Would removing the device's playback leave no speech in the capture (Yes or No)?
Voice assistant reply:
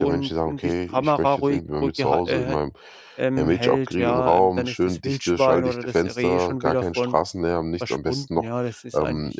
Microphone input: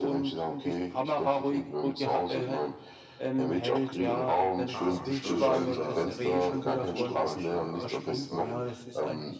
No